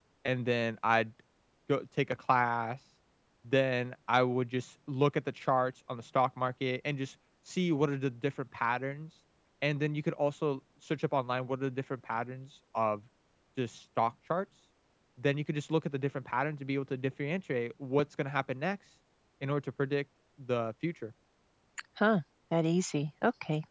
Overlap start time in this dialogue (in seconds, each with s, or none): none